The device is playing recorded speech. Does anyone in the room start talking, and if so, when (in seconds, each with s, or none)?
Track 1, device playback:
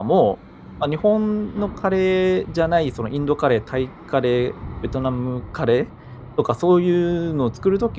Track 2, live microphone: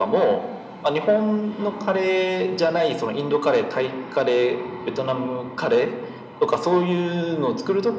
none